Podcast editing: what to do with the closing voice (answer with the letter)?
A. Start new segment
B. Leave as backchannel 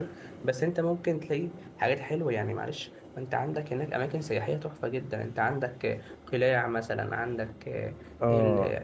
B